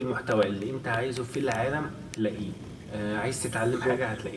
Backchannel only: Yes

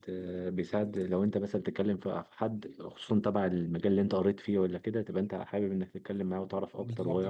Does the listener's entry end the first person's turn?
Yes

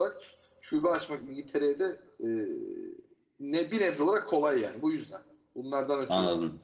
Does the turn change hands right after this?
Yes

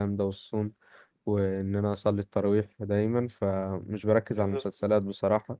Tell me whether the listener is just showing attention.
Yes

